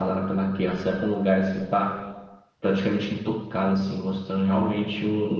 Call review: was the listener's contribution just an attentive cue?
Yes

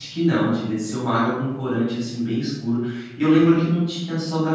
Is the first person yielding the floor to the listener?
No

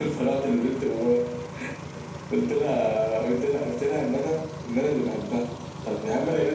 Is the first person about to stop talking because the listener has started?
No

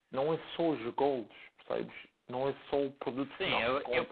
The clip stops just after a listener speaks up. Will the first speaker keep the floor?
No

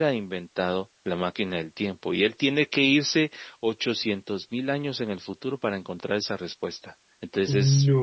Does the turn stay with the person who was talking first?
Yes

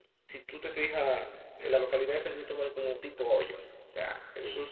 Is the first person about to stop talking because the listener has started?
No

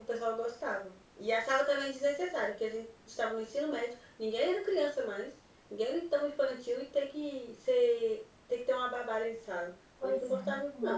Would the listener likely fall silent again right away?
No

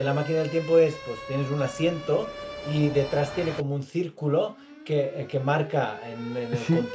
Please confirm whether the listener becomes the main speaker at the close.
Yes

